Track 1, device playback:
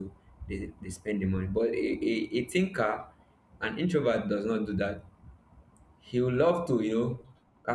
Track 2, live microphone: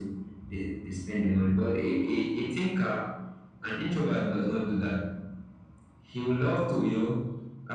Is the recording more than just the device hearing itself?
No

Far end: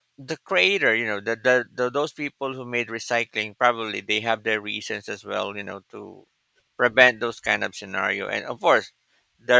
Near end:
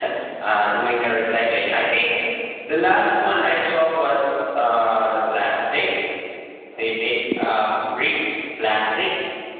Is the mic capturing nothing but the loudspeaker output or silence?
No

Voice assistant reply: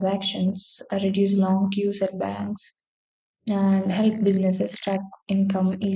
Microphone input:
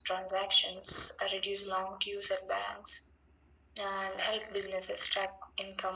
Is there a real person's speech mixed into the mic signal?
No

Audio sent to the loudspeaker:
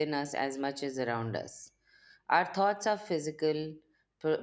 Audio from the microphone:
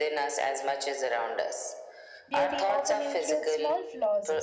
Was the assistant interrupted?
Yes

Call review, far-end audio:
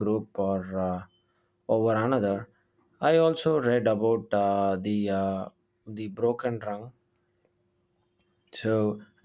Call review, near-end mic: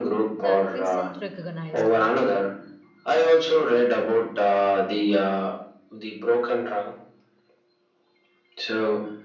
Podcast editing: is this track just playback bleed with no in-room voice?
No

